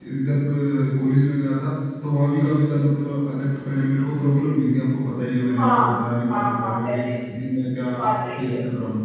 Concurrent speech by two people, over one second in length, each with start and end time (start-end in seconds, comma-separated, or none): 5.6-7.1